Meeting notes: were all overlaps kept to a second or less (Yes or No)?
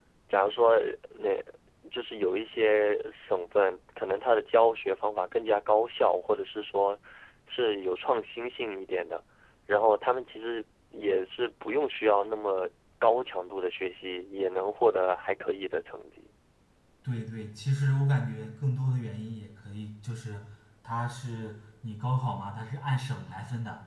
Yes